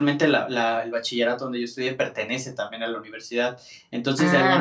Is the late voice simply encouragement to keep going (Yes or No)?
Yes